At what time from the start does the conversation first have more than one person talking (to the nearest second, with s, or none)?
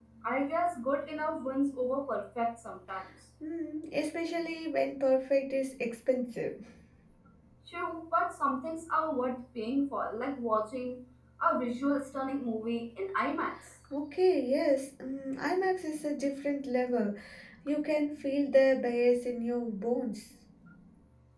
none